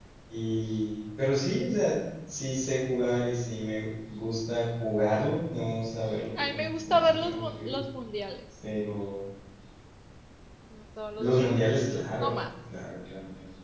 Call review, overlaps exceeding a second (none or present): present